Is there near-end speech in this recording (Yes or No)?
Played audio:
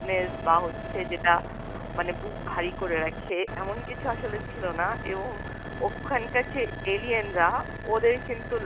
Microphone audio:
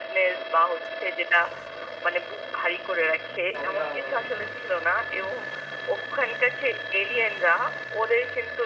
Yes